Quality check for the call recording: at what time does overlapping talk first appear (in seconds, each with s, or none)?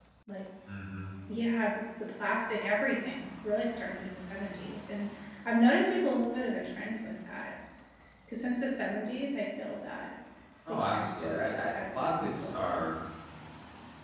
10.7 s